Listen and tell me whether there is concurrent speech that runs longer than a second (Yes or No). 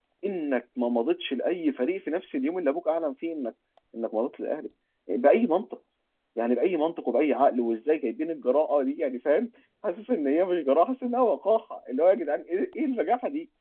No